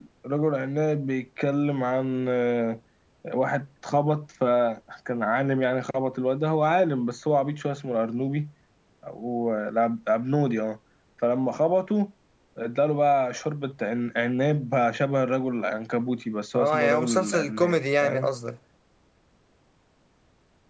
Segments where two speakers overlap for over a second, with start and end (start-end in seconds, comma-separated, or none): 16.5-18.3